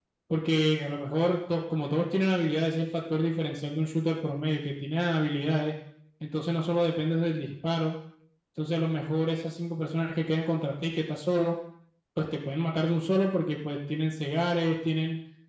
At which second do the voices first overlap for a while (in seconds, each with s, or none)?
none